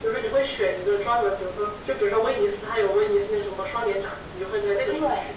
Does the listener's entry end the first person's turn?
Yes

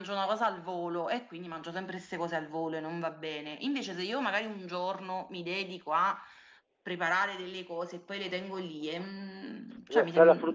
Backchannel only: No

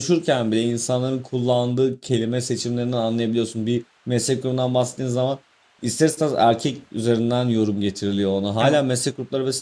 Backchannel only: Yes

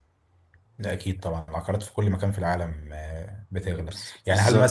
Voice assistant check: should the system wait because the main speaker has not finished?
Yes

